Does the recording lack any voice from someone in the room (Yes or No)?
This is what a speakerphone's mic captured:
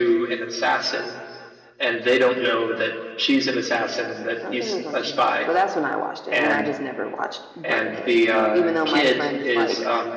No